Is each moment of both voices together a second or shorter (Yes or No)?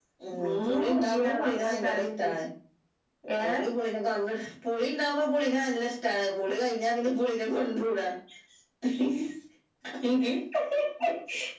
No